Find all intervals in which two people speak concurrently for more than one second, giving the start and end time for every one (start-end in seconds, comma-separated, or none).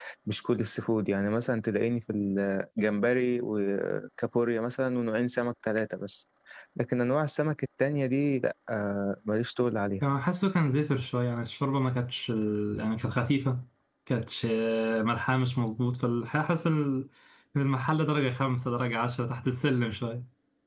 none